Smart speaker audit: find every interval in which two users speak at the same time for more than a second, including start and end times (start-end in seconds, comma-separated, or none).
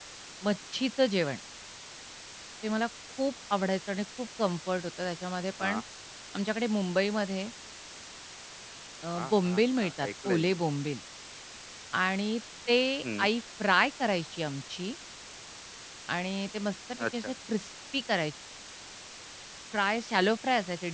9.2-10.5